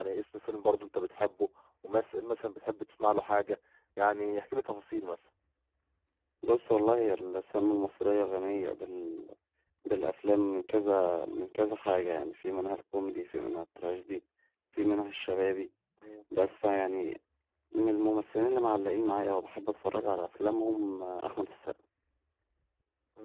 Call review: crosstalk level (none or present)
none